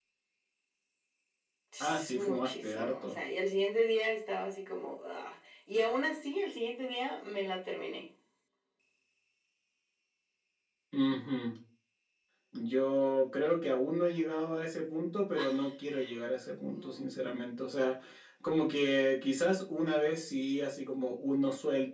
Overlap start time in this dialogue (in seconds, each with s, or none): 1.8 s